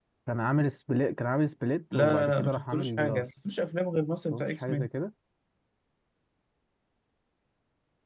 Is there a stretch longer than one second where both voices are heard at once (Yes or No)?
Yes